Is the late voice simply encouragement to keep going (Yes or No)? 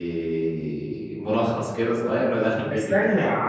No